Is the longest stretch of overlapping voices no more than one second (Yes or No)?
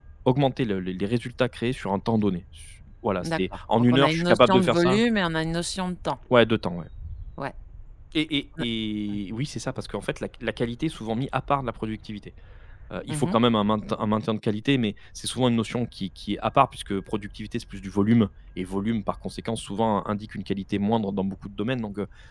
No